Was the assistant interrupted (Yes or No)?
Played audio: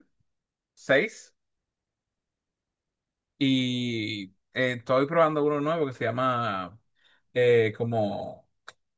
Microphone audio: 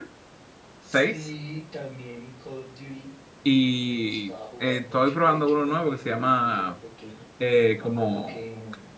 Yes